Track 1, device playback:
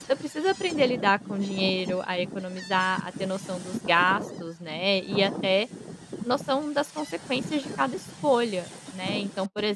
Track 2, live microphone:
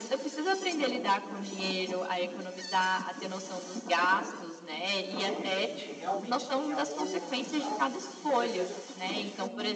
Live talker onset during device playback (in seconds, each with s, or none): 5.2 s